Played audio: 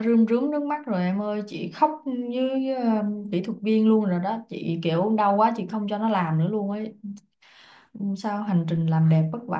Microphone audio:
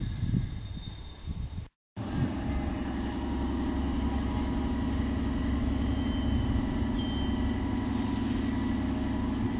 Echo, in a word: none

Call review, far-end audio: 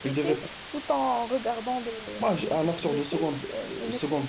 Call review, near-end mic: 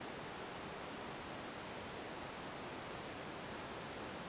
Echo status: none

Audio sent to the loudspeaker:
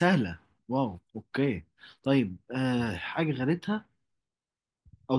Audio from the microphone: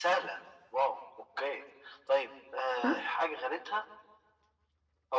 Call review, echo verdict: present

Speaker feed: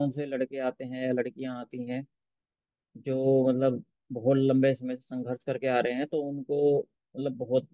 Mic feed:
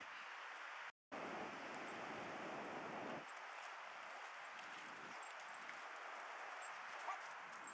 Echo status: none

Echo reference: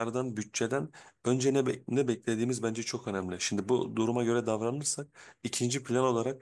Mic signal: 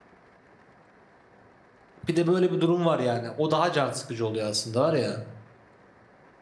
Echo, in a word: none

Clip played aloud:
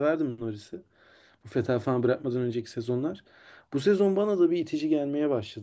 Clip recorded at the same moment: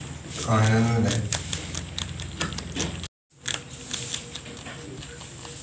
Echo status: none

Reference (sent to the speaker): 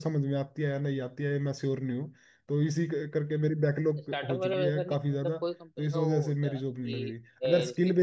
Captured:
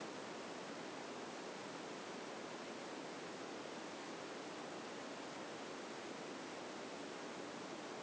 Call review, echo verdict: none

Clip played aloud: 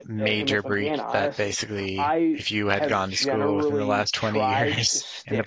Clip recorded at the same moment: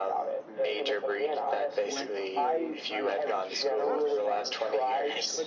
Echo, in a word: present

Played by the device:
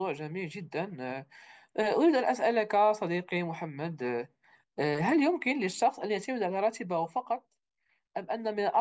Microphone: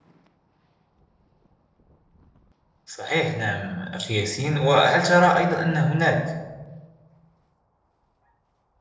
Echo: none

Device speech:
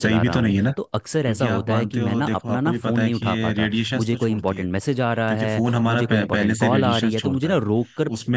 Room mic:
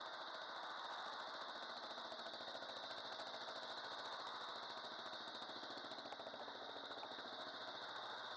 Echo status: none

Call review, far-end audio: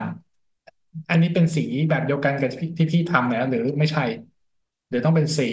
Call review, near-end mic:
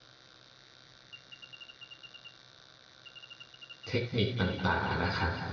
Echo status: none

